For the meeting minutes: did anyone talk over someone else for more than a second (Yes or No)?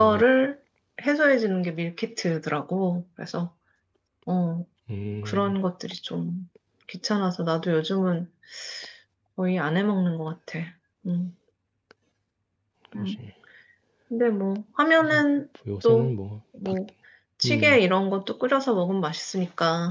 No